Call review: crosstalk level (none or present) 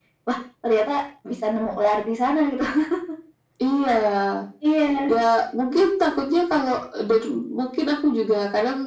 none